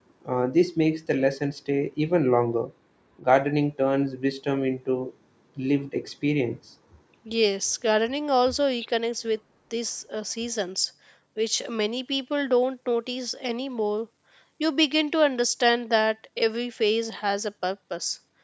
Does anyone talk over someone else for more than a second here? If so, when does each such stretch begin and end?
none

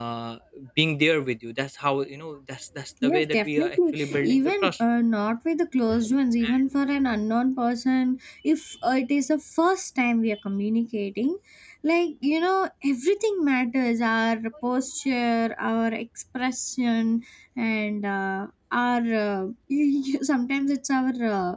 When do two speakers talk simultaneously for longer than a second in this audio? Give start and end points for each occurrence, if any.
3.0-4.7

